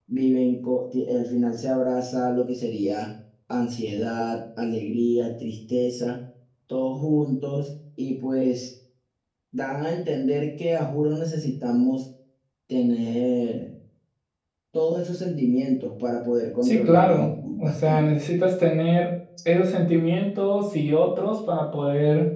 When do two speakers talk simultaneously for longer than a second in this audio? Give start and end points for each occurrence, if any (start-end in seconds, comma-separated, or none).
16.6-18.2